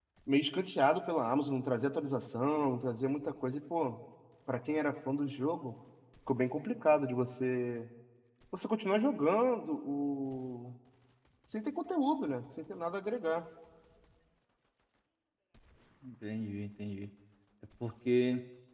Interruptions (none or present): none